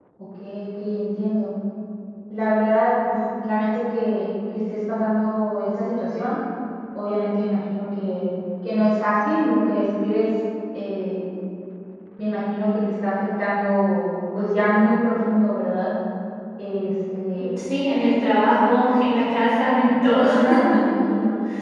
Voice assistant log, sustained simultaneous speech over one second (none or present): none